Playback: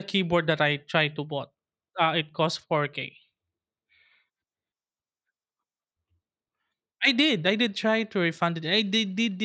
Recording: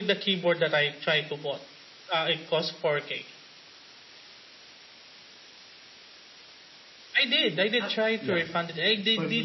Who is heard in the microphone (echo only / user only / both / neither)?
both